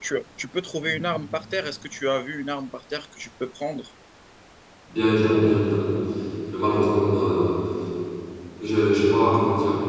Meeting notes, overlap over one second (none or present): none